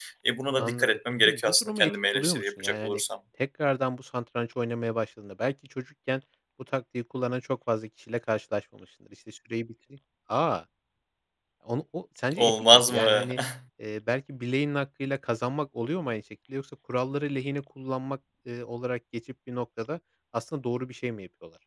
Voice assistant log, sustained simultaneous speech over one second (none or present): present